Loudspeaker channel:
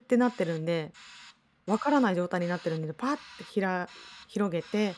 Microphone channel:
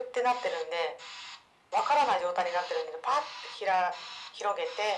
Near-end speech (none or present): none